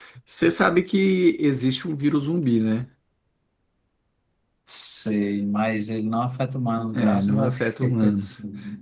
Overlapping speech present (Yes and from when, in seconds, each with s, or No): Yes, from 6.9 s